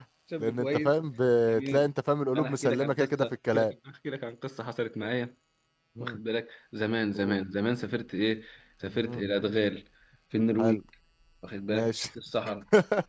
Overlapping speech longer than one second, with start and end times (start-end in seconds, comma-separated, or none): 2.4-3.7